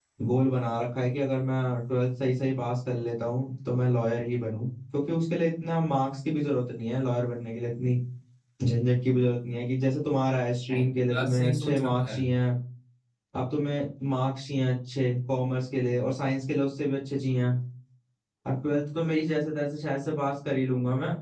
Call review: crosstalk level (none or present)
present